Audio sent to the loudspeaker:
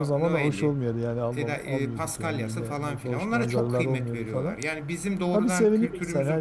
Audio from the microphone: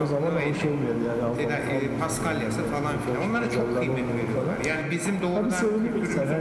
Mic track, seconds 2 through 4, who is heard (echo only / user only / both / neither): echo only